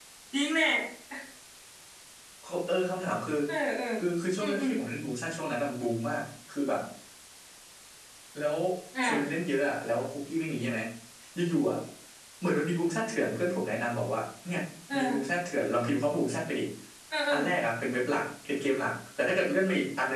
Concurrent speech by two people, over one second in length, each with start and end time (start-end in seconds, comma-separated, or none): none